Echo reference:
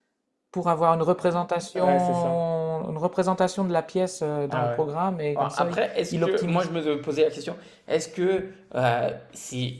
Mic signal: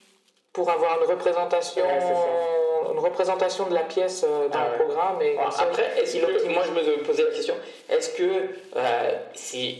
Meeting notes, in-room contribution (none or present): none